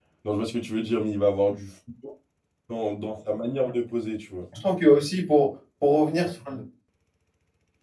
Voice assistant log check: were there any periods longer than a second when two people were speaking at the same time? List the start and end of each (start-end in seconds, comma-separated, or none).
none